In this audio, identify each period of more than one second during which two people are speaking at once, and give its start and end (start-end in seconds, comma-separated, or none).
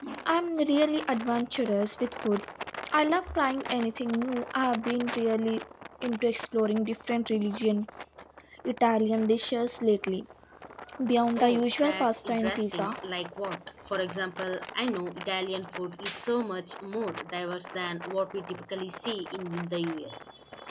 11.4-12.9